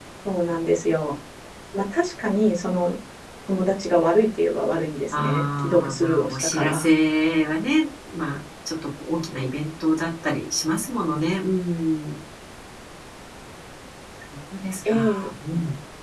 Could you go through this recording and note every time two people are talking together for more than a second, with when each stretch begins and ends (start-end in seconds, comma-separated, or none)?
5.1-6.9